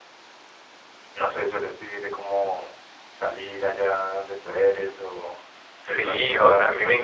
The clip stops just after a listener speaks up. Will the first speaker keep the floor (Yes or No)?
No